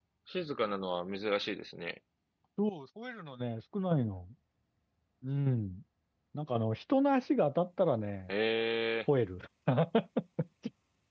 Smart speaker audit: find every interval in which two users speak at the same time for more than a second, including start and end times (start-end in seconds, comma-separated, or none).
none